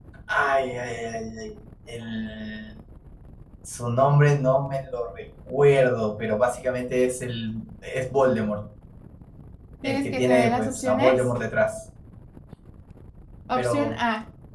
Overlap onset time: 9.8 s

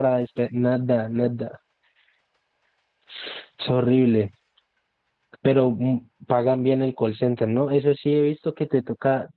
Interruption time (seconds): none

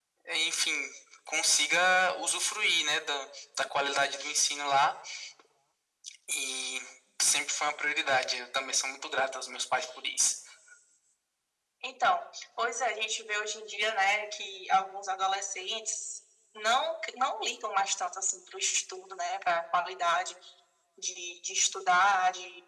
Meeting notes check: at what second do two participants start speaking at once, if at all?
none

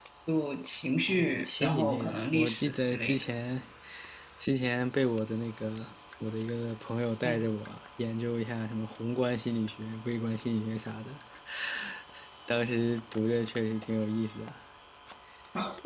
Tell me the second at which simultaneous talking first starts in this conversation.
1.1 s

